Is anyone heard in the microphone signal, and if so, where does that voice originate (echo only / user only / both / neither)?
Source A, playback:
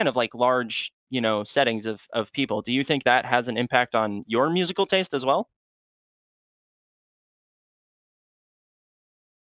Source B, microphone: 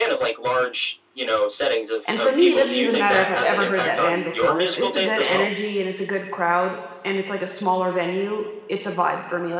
both